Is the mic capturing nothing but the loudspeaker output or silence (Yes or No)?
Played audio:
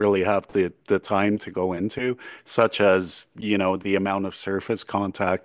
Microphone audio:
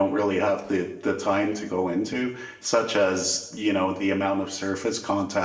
Yes